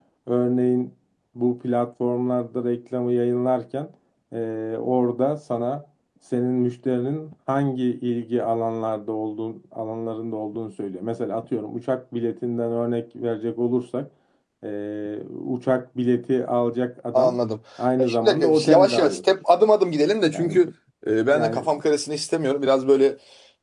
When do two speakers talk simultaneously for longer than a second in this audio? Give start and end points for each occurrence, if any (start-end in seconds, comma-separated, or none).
18.0-19.2